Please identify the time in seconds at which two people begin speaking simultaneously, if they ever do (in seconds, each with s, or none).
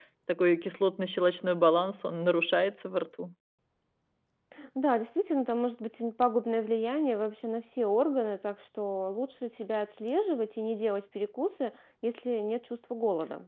none